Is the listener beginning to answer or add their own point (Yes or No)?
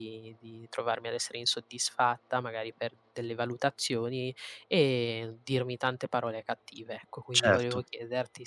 No